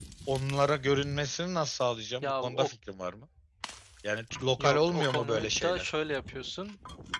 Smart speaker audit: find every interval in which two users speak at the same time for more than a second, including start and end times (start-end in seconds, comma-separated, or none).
4.6-5.9